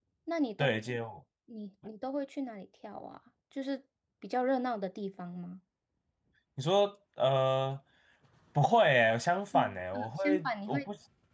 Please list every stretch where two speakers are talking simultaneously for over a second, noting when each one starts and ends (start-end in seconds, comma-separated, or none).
9.5-10.8